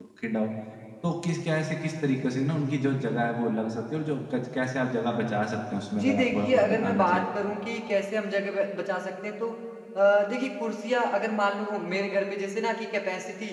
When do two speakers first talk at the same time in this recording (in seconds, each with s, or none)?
5.9 s